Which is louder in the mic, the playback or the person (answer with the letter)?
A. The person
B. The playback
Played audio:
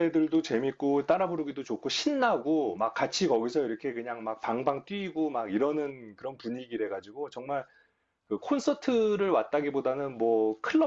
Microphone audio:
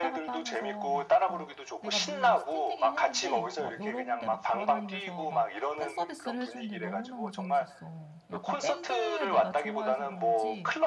B